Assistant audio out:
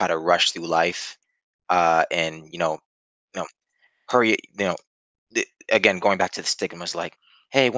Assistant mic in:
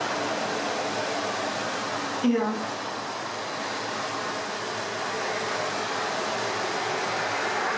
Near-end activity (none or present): present